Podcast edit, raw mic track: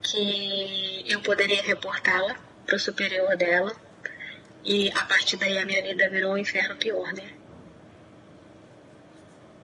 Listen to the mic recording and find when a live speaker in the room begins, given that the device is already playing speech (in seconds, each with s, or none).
none